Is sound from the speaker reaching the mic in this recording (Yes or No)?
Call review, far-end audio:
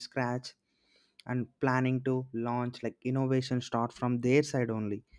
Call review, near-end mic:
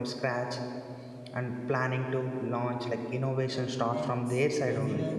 Yes